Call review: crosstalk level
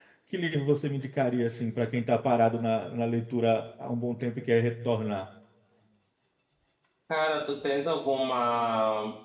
none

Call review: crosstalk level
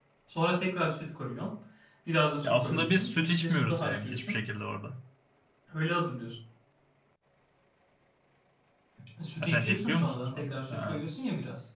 present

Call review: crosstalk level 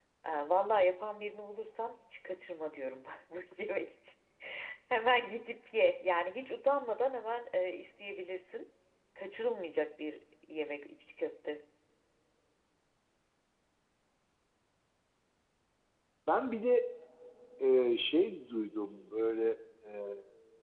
none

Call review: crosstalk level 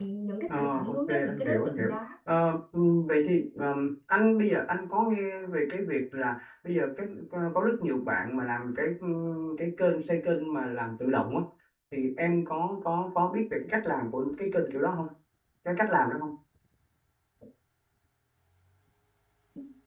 present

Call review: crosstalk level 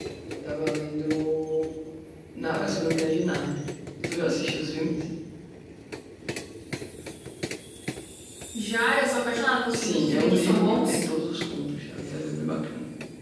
present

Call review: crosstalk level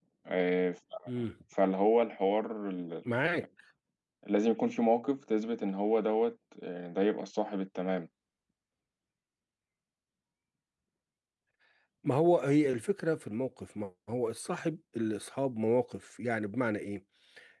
none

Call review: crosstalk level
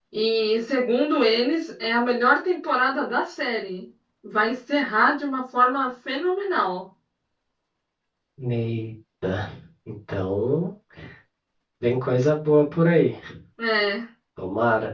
none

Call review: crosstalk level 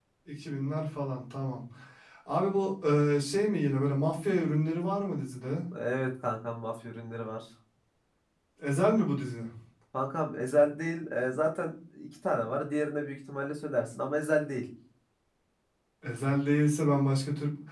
none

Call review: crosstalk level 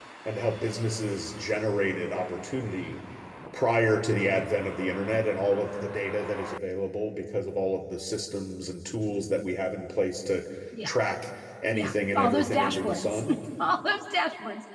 present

